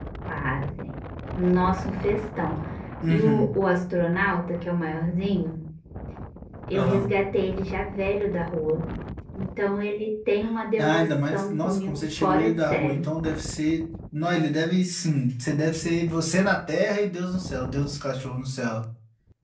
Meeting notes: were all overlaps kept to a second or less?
No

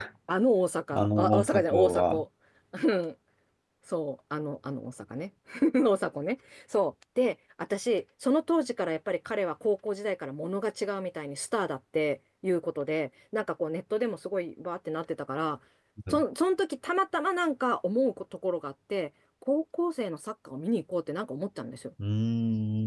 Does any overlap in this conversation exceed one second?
Yes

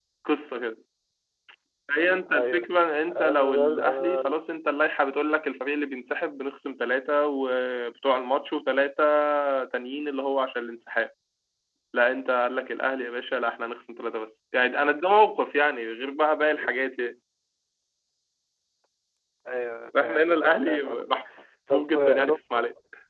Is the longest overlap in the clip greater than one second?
Yes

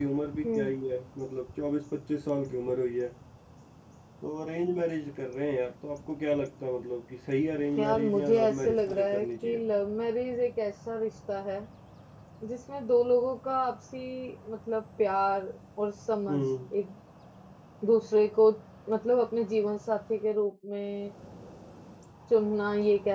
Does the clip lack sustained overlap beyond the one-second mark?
No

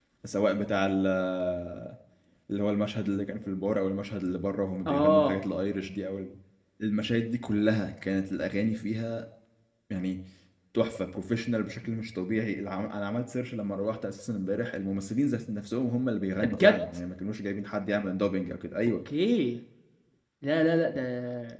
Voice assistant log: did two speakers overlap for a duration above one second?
No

